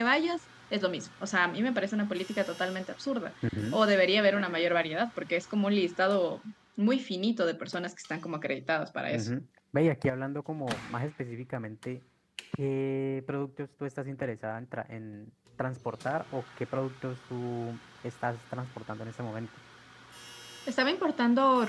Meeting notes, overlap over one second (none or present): none